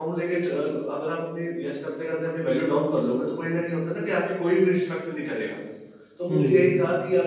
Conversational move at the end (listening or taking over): listening